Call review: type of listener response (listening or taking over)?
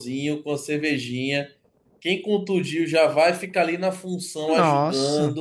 listening